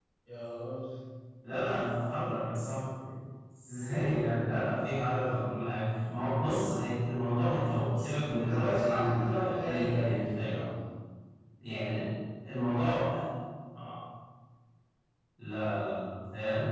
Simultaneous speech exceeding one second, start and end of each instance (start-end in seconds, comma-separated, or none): 7.5-10.6